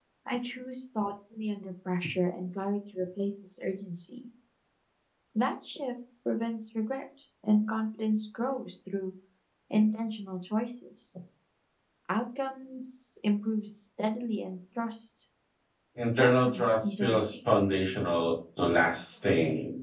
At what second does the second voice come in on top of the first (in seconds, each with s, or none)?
16.1 s